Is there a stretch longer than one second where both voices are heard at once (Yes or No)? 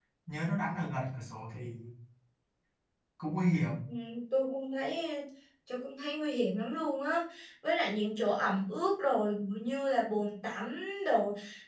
No